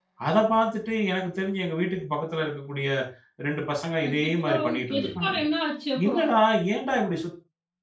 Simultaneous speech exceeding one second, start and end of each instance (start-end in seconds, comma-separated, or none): 4.1-5.4